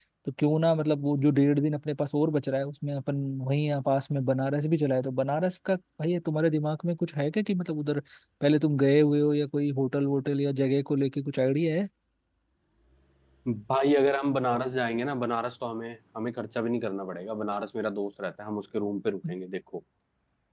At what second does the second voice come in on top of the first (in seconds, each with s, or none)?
none